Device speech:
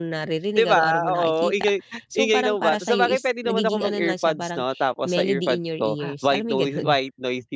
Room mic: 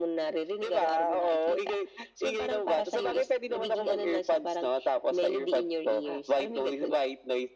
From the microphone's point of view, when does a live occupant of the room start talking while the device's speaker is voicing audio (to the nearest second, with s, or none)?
none